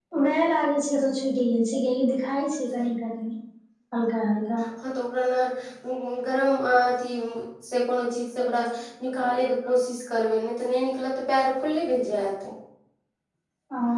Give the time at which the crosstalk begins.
none

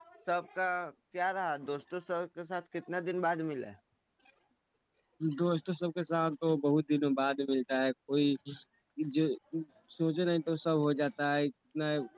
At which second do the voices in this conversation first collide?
none

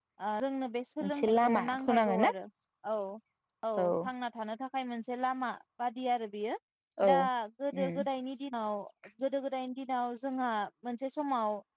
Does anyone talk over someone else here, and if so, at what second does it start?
1.0 s

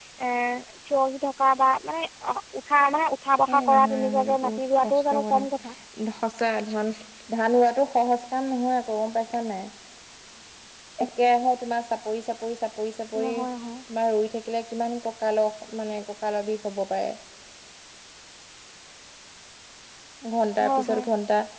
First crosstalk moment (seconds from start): 3.5 s

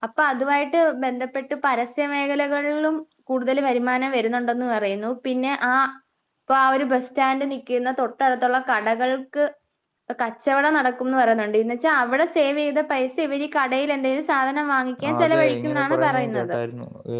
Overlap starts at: 15.0 s

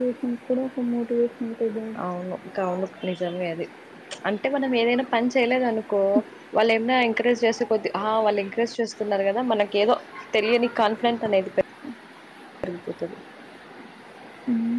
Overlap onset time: none

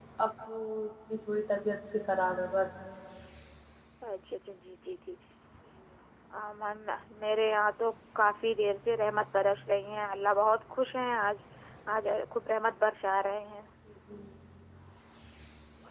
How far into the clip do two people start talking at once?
none

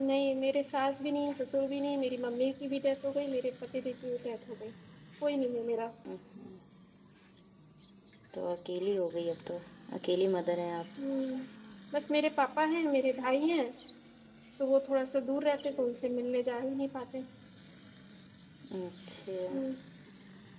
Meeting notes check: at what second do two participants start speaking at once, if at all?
none

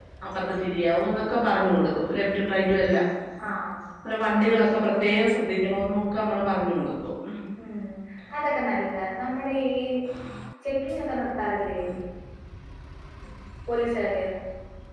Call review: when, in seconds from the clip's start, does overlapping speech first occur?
none

